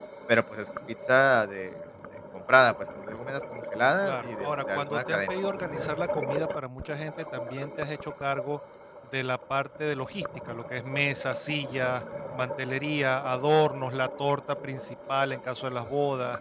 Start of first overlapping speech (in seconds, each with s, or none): 4.0 s